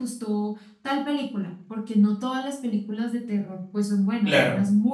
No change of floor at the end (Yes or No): No